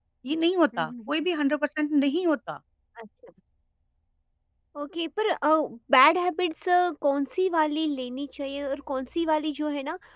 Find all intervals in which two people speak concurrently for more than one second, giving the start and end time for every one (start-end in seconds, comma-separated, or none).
none